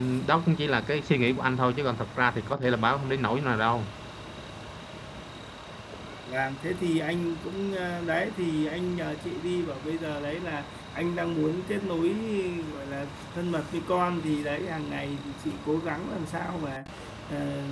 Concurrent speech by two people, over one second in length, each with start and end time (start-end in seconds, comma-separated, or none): none